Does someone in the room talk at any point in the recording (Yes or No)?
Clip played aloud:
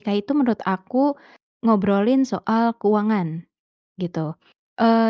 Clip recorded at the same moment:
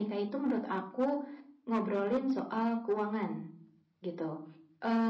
No